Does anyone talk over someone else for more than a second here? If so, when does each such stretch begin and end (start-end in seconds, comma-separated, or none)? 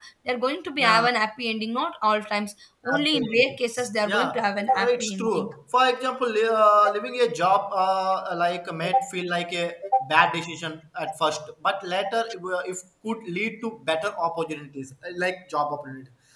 2.9-5.5